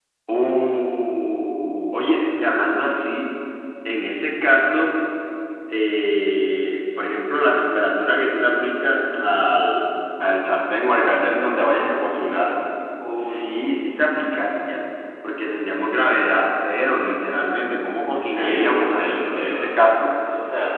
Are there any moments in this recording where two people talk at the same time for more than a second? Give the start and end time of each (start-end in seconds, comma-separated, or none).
18.3-20.1